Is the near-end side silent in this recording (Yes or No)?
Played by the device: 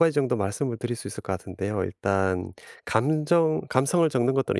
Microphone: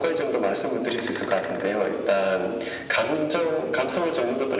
Yes